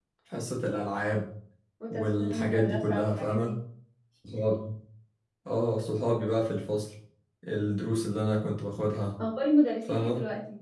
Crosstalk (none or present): present